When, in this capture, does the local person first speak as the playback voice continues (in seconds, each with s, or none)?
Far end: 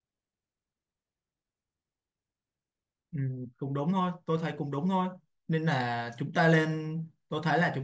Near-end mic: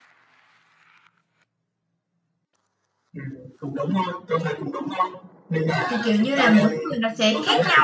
5.9 s